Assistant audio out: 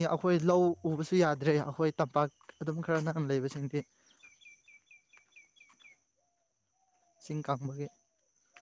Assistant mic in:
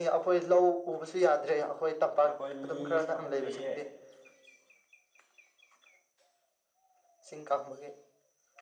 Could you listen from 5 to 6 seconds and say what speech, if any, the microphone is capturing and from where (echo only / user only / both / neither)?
neither